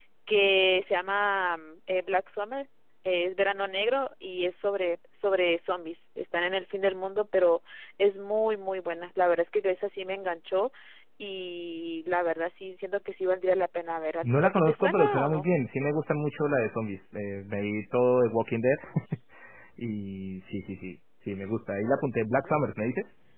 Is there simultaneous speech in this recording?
Yes, from 14.2 s

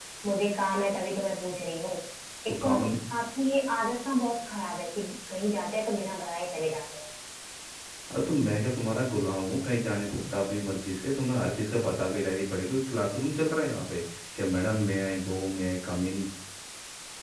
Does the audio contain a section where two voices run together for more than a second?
No

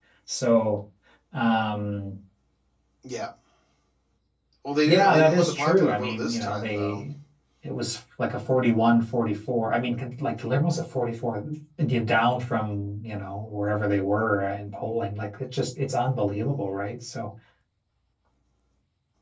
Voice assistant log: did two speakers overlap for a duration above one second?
Yes, from 4.8 s

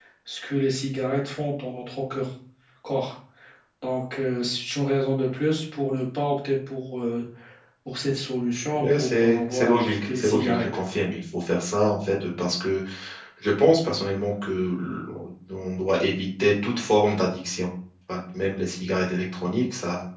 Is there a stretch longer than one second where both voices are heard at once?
Yes, from 8.7 s

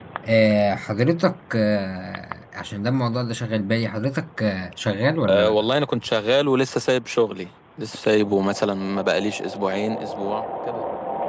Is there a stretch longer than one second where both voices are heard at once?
No

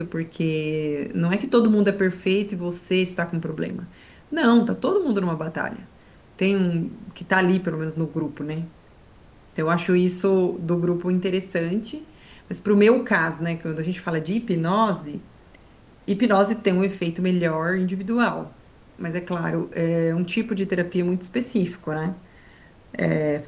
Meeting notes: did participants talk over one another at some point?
No

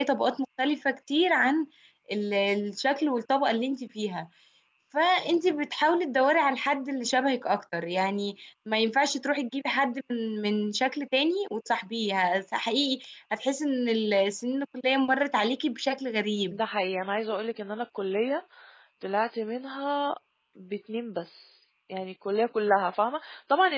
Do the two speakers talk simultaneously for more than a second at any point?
No

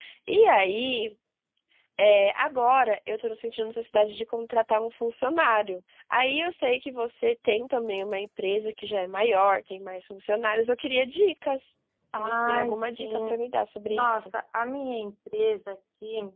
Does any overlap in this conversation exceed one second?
Yes, from 12.1 s

